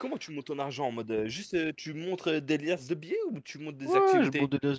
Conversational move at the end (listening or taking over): taking over